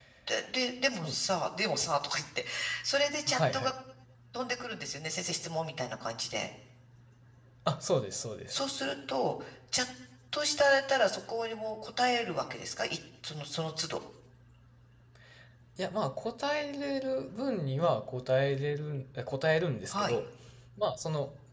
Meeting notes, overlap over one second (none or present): none